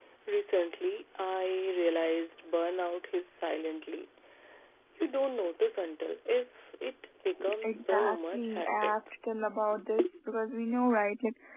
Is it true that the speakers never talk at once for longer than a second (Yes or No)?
No